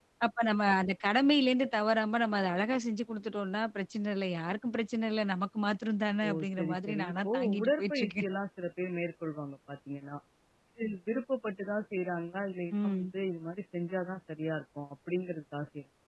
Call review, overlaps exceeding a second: present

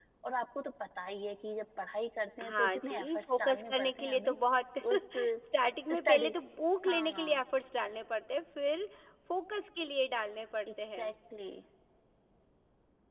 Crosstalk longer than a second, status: present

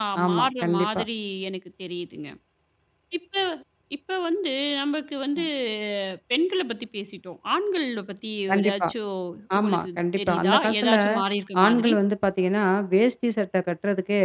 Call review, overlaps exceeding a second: present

